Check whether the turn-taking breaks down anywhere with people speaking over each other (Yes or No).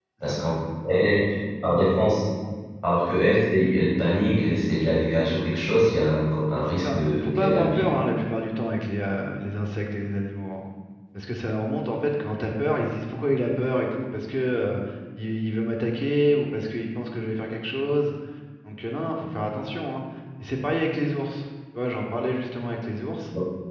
Yes